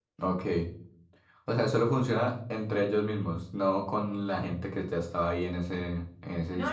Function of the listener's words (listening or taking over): taking over